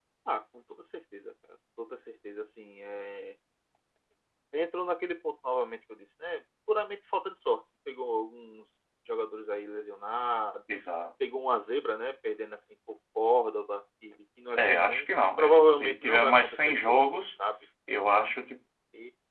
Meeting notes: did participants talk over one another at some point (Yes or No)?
Yes